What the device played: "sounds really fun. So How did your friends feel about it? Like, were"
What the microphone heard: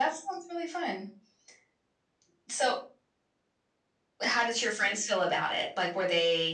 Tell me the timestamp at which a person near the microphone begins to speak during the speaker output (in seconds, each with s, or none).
none